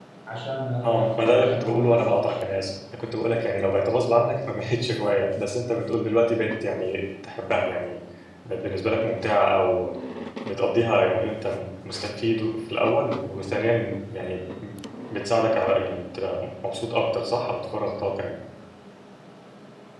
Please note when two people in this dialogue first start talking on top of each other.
1 s

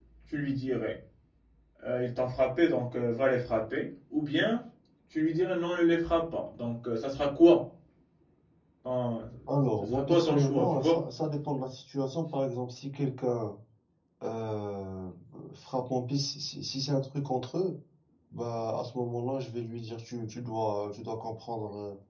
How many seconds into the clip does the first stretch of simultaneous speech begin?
10 s

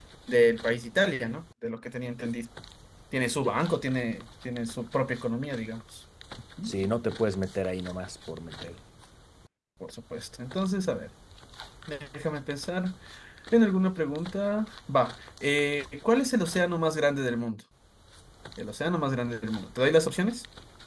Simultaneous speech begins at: none

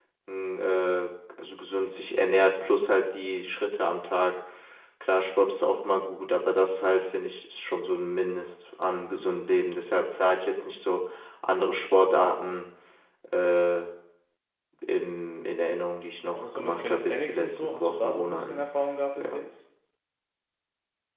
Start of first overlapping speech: 16 s

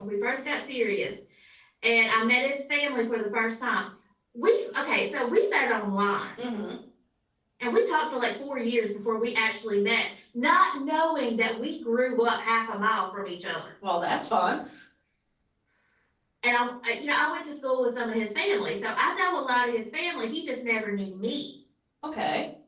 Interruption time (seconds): none

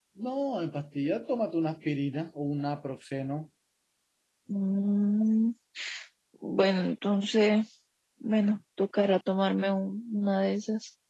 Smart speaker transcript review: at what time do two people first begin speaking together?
none

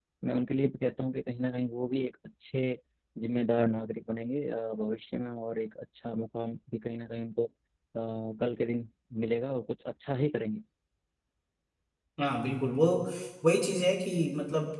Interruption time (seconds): none

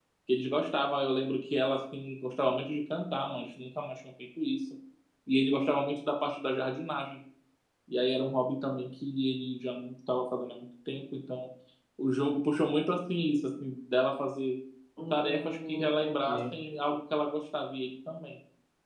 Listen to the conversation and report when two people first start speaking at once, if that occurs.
15 s

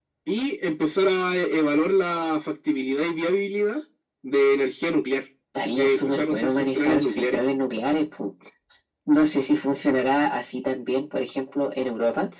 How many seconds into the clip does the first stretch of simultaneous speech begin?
6 s

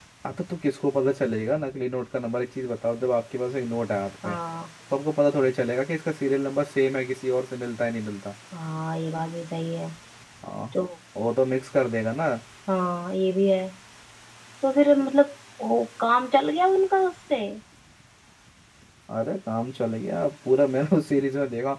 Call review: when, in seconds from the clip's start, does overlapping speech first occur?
none

